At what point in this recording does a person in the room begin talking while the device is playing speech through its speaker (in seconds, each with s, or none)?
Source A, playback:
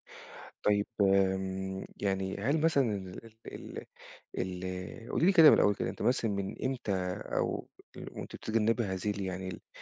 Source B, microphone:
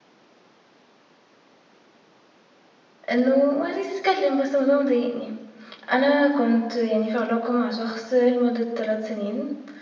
3.1 s